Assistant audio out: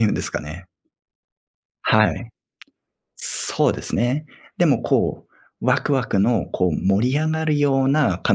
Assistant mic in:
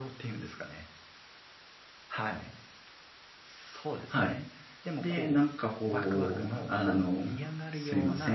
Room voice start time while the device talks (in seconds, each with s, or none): 4.1 s